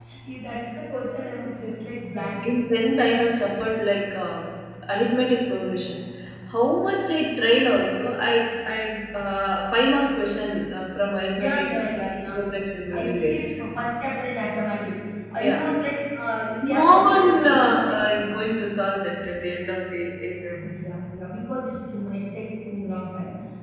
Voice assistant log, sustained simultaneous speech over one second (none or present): present